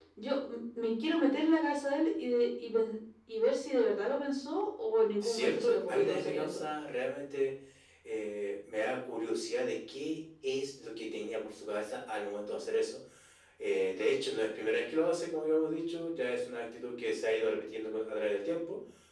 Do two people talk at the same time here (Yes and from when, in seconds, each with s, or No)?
Yes, from 5.2 s